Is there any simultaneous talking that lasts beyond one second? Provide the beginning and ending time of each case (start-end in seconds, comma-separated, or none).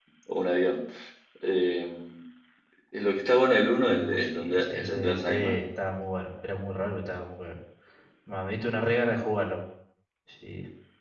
3.8-5.5